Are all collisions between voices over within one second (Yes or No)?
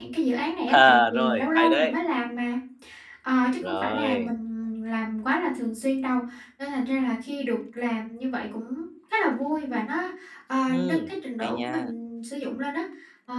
No